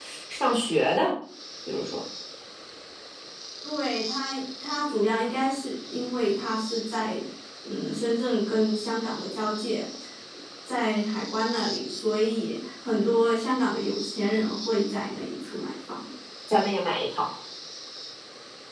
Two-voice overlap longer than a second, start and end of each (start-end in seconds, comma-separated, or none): none